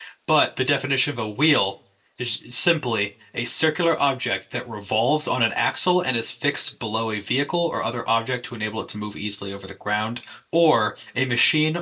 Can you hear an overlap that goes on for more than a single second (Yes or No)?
No